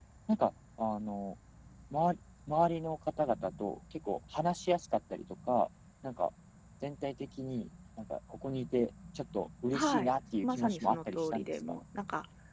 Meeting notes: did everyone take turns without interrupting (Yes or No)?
No